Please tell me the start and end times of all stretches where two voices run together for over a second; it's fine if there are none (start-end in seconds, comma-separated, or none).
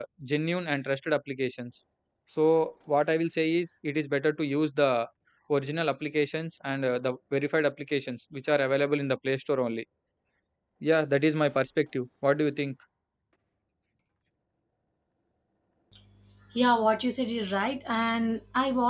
none